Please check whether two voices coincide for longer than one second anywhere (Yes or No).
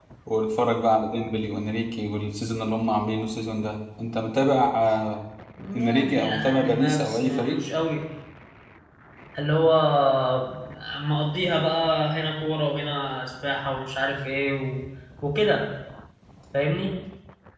Yes